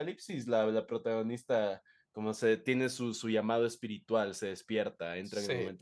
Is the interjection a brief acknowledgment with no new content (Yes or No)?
Yes